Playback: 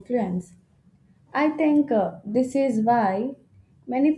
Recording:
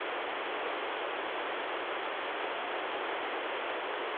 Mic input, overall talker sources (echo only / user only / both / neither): neither